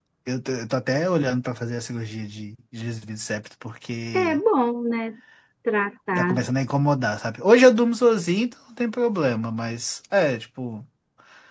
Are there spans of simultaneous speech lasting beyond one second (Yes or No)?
No